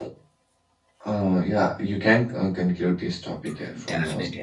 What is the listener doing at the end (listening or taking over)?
taking over